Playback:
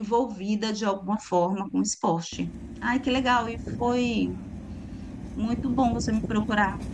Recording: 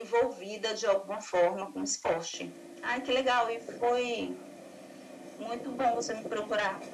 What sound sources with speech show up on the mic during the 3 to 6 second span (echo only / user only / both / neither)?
echo only